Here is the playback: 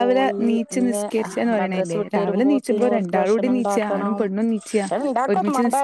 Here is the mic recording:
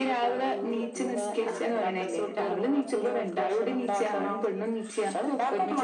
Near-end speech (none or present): present